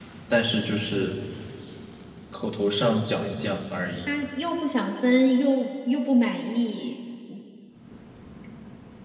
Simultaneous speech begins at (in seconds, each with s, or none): none